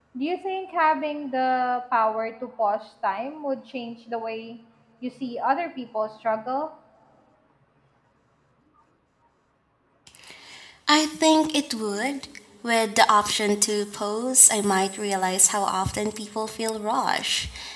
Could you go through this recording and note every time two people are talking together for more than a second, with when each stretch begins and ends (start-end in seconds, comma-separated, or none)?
none